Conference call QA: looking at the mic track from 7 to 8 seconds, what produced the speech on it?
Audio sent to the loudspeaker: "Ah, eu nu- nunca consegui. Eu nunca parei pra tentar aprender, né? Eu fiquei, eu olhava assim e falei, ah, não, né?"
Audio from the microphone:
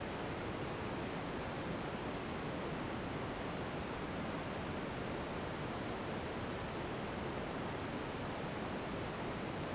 neither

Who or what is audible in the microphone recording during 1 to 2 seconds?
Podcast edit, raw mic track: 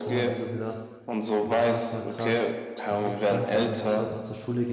both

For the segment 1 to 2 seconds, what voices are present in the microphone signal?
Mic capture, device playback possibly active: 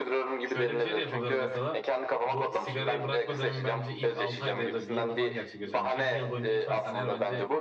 both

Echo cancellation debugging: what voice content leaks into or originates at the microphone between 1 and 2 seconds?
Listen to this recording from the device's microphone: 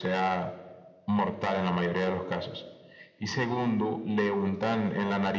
echo only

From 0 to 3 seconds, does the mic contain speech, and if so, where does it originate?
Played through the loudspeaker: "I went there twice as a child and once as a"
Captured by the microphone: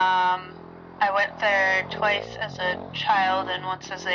echo only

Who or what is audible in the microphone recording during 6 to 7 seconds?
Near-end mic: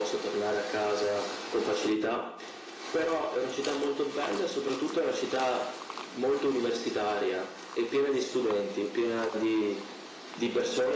echo only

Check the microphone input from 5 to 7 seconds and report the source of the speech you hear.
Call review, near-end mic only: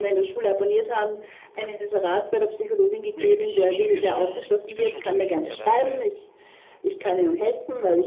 both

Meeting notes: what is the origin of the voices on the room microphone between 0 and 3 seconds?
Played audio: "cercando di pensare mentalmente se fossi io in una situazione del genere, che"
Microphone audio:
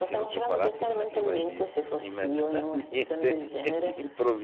both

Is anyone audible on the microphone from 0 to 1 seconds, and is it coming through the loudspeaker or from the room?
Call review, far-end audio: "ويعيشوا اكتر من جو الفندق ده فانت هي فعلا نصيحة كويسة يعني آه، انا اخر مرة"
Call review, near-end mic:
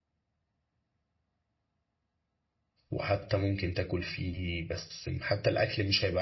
neither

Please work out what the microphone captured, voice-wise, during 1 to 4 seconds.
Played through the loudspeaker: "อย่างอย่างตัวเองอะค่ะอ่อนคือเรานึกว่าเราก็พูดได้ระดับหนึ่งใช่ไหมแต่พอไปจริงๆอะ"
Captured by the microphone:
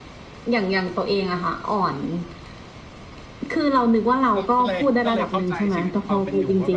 echo only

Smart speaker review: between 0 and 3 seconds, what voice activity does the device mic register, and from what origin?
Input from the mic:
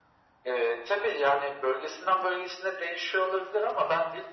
echo only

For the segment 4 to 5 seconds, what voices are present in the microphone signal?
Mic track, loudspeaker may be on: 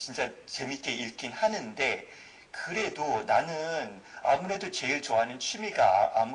echo only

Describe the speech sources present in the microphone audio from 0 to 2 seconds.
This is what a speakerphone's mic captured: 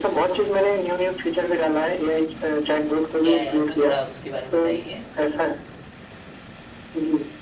echo only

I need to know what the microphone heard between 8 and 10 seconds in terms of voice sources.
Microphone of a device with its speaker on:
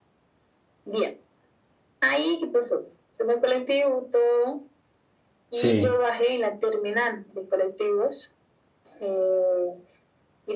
echo only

